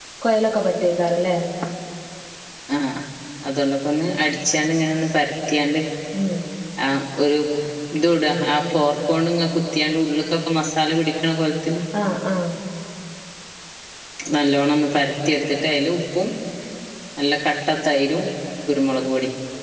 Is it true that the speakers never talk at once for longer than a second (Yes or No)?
Yes